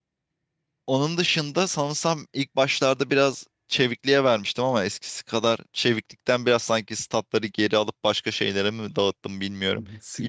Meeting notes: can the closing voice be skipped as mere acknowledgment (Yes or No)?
No